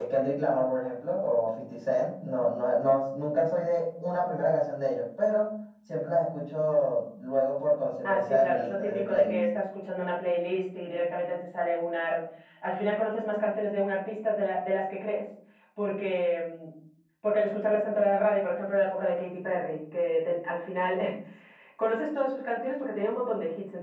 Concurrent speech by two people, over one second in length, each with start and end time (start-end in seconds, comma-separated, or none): 8.0-9.5